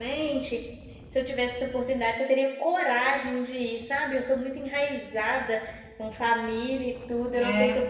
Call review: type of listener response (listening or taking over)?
listening